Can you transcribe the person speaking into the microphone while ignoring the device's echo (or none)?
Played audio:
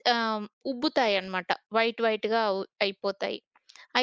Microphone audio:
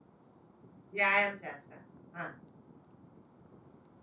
వ్యాయామం చేస్తారు. ఆ!